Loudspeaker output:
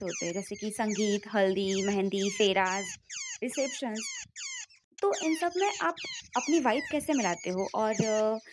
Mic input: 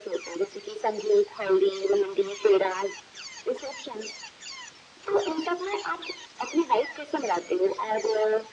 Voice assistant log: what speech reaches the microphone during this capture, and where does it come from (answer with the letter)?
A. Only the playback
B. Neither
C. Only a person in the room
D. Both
A